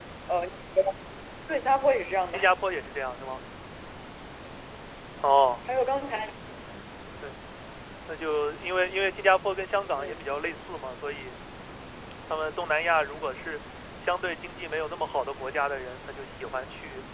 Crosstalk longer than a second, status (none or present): none